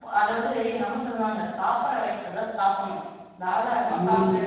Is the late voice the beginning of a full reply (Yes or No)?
No